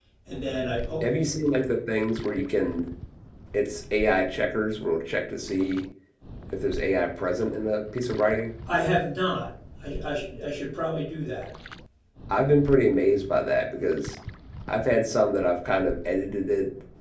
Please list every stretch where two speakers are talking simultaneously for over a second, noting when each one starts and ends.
none

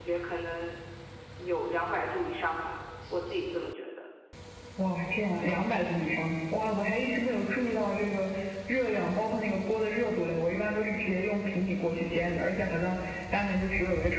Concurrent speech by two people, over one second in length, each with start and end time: none

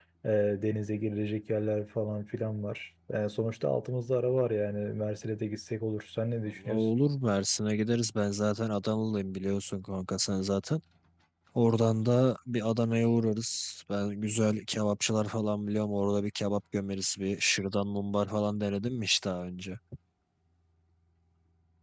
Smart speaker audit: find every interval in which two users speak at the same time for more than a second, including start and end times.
none

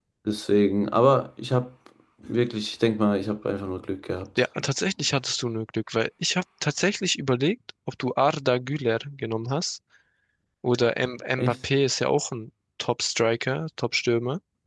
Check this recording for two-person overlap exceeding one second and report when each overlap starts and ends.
none

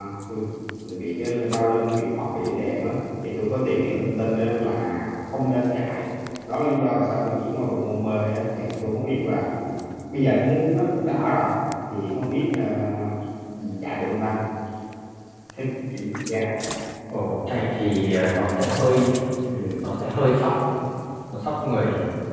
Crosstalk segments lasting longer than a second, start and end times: none

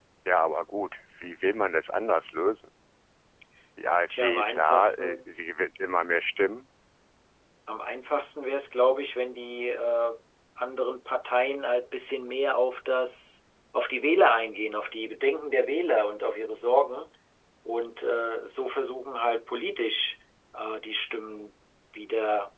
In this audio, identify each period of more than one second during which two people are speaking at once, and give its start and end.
4.2-5.4

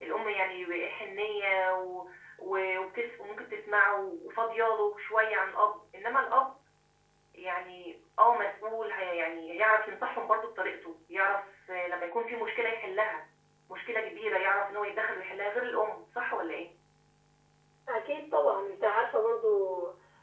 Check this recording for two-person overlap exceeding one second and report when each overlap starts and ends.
none

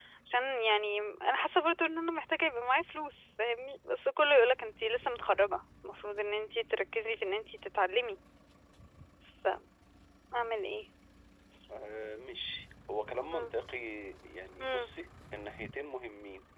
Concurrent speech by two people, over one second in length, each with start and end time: none

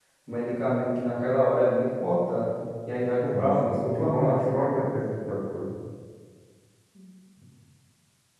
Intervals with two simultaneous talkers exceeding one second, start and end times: 3.3-4.6

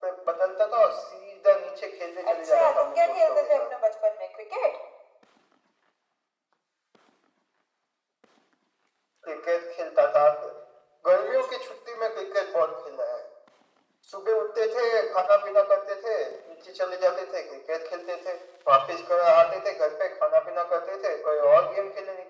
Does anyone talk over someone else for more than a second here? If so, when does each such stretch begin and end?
2.3-3.7

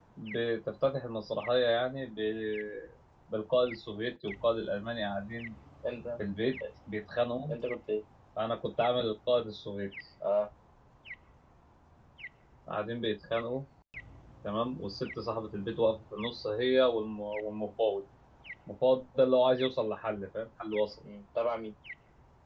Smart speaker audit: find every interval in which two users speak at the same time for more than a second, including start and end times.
none

